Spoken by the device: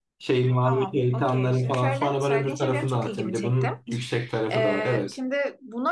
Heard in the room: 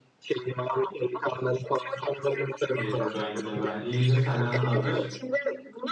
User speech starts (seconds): 2.7 s

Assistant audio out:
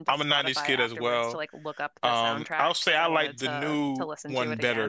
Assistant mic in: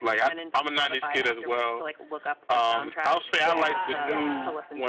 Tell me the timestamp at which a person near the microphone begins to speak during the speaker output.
3.1 s

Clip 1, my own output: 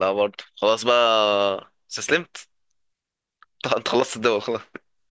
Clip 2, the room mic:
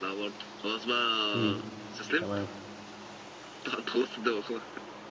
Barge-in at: 1.3 s

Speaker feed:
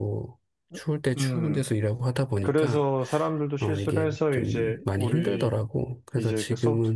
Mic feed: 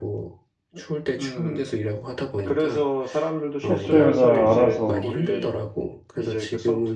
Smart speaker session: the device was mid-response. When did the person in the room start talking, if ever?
3.6 s

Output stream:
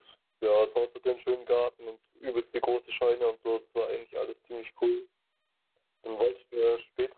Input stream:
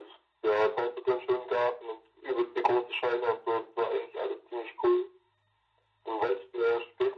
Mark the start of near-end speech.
none

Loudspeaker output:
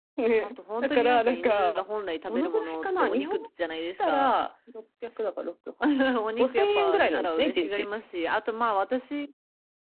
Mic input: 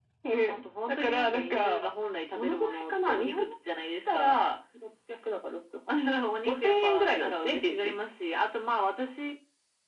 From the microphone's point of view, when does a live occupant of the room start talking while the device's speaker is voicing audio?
none

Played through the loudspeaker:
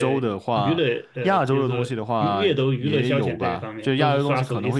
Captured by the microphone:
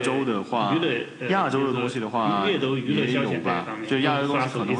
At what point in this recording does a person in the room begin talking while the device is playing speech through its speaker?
none

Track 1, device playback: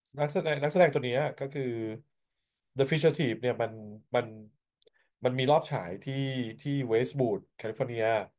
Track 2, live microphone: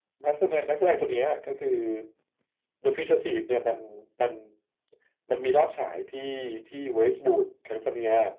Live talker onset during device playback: none

